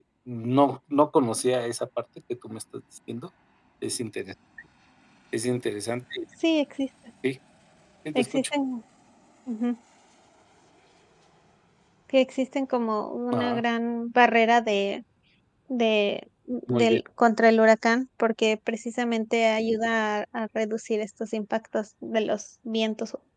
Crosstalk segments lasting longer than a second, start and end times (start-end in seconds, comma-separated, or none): none